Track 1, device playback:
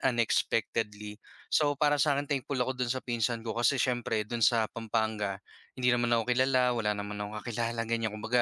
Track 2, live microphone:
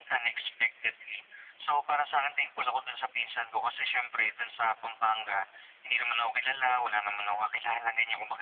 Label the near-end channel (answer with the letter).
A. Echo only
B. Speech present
A